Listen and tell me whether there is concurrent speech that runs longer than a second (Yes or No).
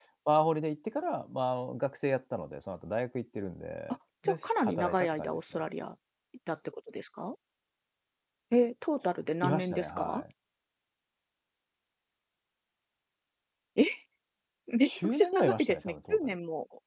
Yes